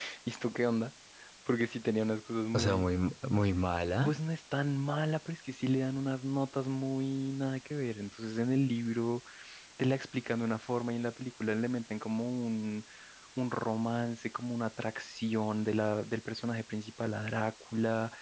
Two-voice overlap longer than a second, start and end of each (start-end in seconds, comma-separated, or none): none